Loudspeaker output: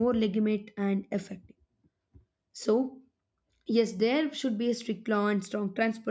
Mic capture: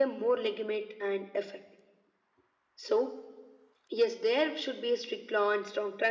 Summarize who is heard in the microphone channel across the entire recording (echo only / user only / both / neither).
echo only